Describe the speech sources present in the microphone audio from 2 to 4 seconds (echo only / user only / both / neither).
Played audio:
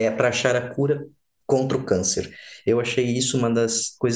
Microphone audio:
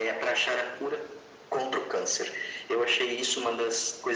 echo only